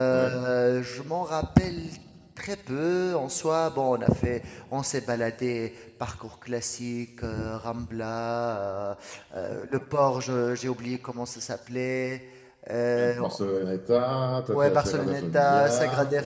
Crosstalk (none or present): present